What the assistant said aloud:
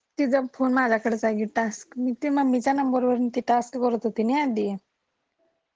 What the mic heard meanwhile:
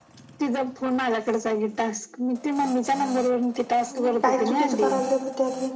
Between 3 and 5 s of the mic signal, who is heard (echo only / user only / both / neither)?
both